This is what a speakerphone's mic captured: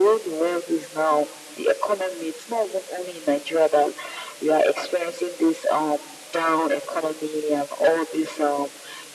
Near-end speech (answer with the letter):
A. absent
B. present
A